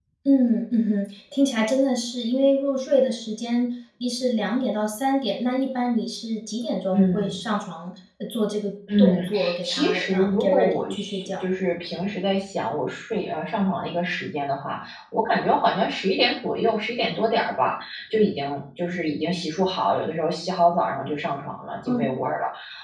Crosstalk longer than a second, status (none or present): present